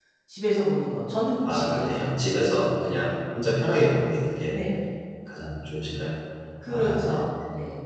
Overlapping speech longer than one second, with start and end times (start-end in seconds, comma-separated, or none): none